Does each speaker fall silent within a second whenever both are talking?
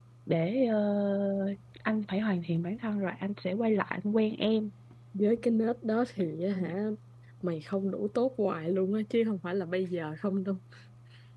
Yes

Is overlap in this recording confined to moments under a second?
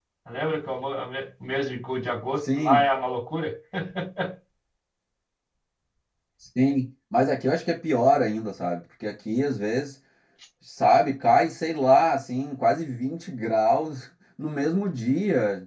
Yes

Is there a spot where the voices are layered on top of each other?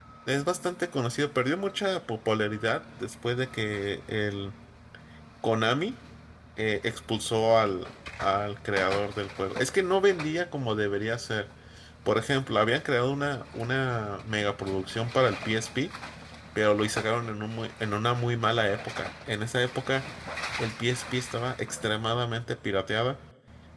No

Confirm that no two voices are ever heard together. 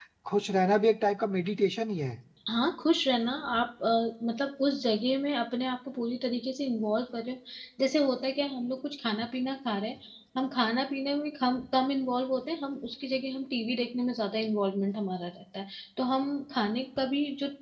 Yes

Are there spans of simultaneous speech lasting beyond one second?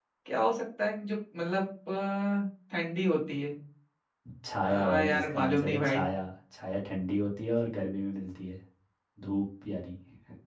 Yes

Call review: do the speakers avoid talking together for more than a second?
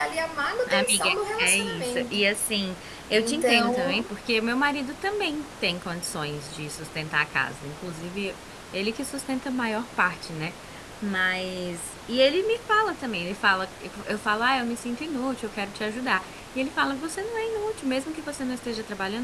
No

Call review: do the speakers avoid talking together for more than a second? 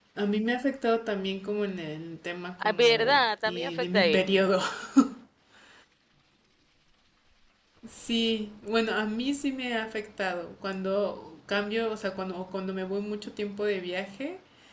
No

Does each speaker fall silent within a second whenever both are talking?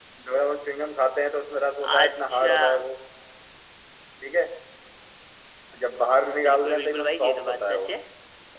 No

